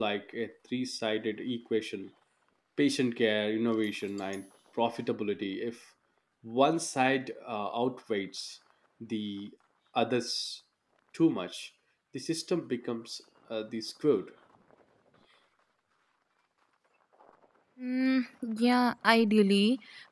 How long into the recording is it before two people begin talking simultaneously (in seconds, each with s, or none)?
none